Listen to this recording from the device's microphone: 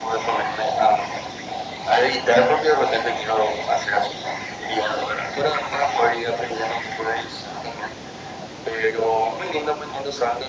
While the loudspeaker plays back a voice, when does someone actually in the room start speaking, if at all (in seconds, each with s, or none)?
none